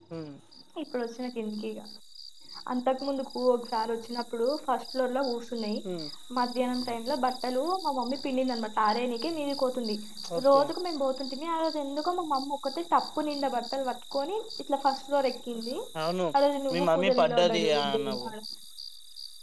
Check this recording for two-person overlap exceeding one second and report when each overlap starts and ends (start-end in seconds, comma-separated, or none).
16.7-18.3